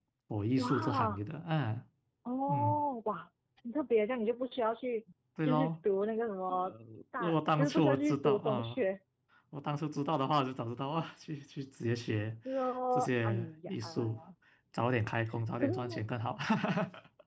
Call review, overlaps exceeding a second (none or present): present